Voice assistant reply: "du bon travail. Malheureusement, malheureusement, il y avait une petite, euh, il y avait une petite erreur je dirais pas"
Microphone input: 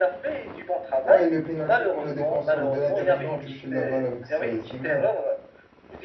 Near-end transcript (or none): Ouais, le pénalty quand le défenseur de l'Inter Milan a touché la balle avec sa- ses mains.